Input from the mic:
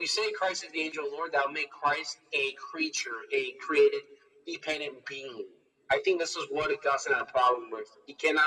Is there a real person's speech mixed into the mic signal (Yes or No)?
No